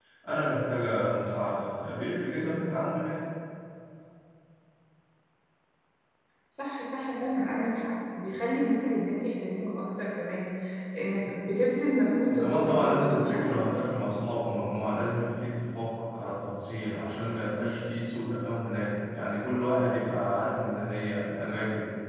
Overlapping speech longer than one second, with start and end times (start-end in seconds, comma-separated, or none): 12.3-14.1